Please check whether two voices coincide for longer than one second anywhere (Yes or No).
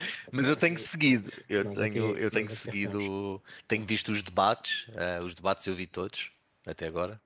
Yes